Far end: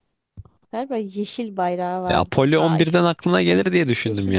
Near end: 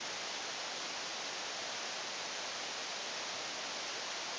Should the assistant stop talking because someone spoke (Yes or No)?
No